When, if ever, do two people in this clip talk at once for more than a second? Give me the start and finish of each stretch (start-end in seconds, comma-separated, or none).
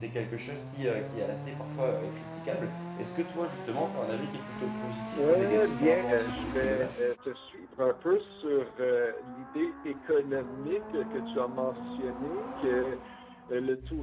5.2-7.0